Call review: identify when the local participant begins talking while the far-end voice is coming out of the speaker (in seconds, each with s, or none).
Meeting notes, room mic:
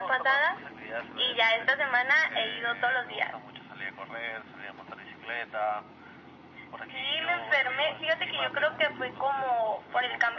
none